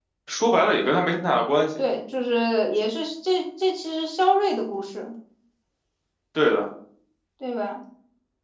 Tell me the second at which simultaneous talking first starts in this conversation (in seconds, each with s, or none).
none